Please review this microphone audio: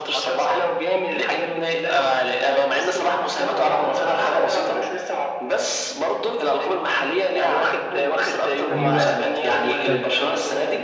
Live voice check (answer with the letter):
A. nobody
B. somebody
B